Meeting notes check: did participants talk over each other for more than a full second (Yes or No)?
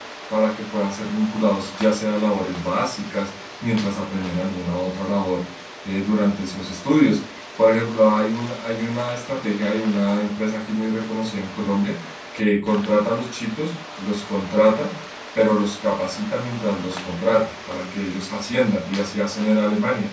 No